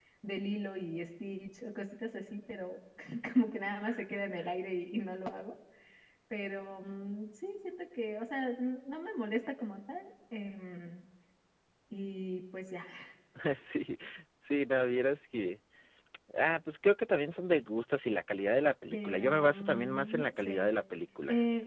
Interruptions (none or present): present